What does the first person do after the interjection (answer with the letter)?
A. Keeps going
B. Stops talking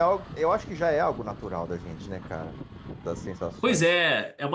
B